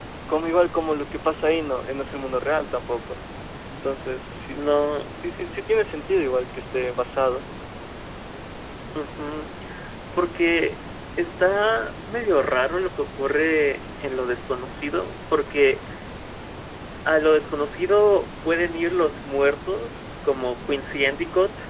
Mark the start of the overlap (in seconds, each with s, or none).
none